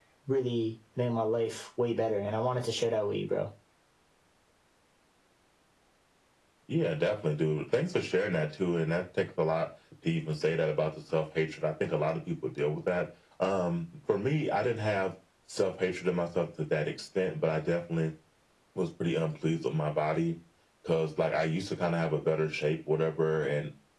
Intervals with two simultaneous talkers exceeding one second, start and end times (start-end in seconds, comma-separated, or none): none